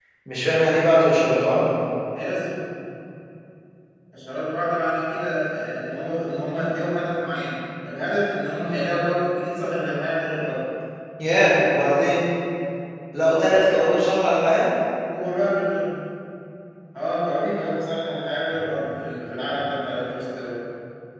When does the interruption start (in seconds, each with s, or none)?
none